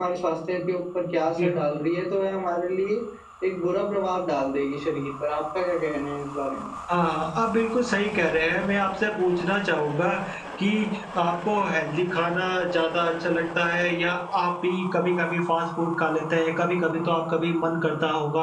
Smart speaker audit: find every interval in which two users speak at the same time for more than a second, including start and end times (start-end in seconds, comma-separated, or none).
none